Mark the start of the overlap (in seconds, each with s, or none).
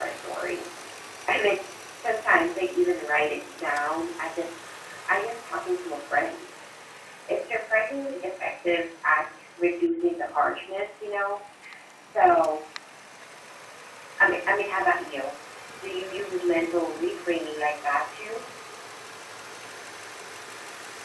none